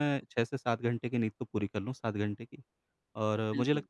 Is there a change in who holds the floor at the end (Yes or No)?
No